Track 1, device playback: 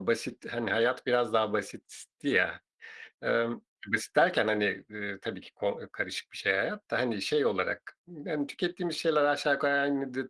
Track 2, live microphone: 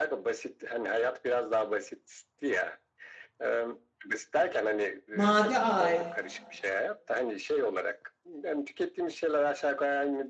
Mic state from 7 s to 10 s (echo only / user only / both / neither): echo only